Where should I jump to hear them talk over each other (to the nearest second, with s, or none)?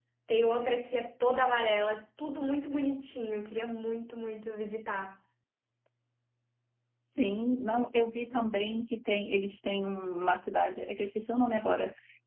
none